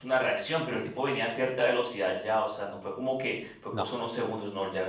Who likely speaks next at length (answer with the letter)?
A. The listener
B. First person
B